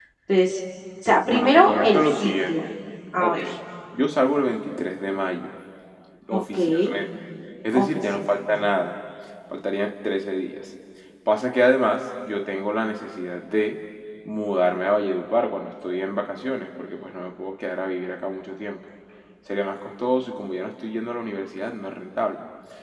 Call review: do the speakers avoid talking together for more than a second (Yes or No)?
No